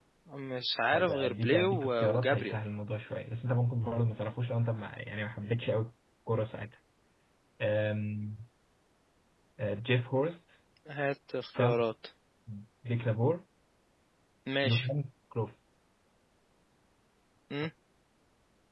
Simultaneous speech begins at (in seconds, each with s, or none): 0.9 s